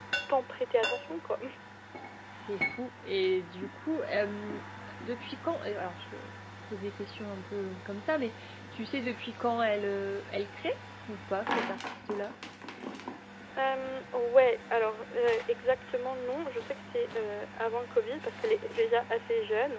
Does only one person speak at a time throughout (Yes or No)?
Yes